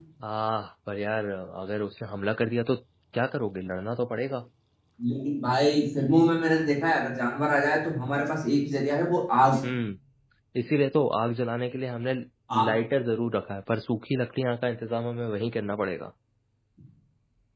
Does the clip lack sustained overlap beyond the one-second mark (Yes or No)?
Yes